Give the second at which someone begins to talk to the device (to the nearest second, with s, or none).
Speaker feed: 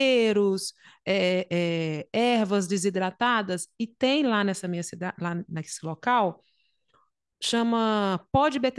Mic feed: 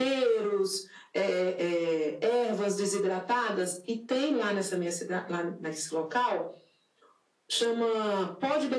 none